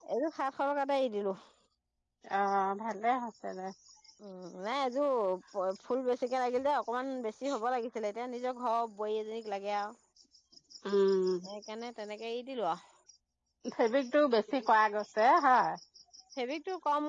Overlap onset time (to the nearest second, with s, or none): none